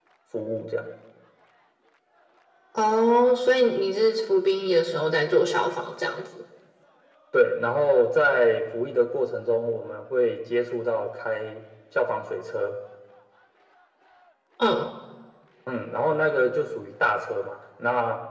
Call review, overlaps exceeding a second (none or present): none